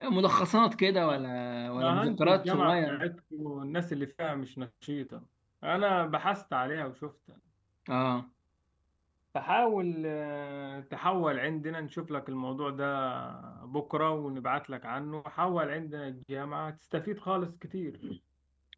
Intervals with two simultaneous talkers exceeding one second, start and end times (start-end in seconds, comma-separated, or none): 1.8-3.0